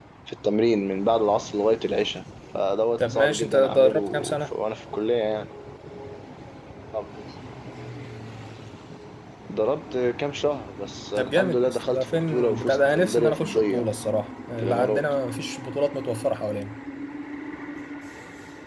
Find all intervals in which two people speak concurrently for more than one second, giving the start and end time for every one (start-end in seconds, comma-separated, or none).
3.0-4.5, 11.2-13.8